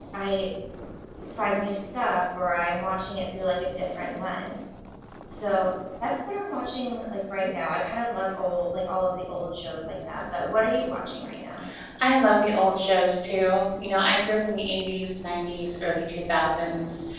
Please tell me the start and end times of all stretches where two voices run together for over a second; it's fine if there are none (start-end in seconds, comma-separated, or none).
none